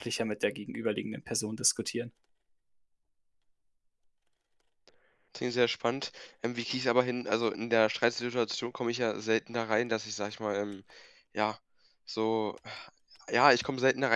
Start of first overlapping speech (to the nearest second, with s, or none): none